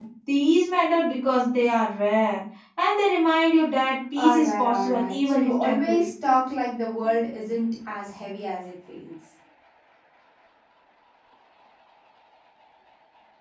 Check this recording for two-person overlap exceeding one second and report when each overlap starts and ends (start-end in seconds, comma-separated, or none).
4.2-6.1